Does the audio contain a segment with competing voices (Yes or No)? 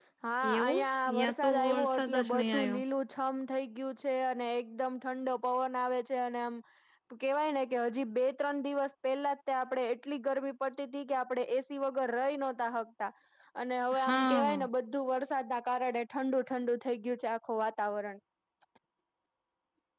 Yes